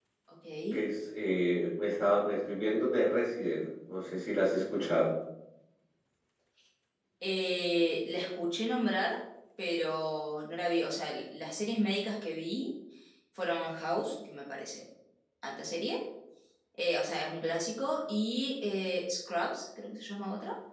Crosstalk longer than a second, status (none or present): none